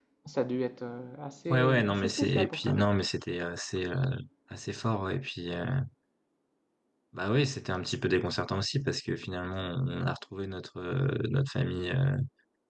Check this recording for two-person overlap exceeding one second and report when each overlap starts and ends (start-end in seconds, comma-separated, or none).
1.5-2.8